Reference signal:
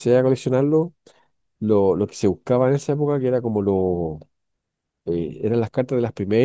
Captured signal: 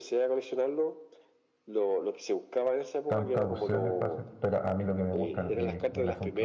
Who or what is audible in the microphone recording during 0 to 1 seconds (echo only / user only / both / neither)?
echo only